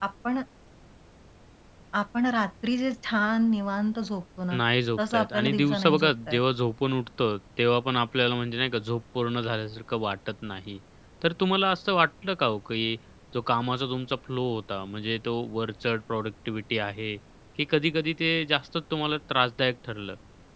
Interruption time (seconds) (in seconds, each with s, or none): 5.0 s